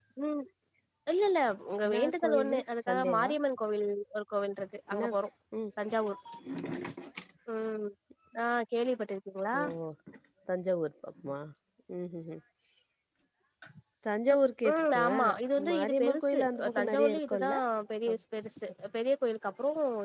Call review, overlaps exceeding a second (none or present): present